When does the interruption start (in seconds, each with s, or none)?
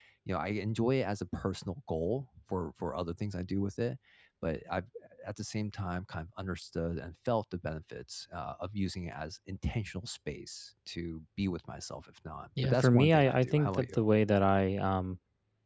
12.6 s